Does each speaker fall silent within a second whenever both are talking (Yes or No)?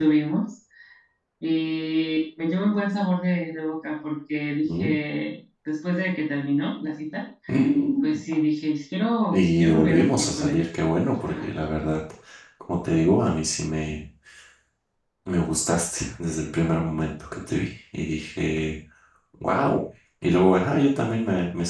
No